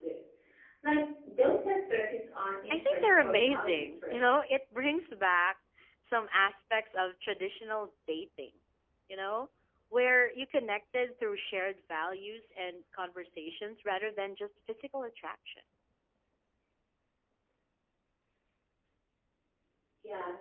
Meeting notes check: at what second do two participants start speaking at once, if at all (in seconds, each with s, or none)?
2.7 s